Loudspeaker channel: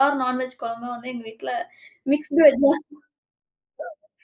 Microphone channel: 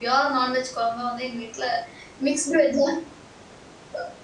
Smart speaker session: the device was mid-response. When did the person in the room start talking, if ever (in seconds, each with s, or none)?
none